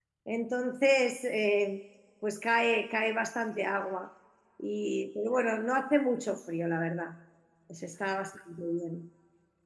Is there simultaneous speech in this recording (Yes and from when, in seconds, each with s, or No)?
No